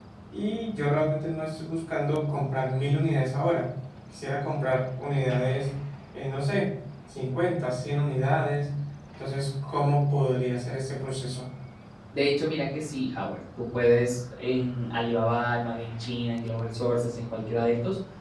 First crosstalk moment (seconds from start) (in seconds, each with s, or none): none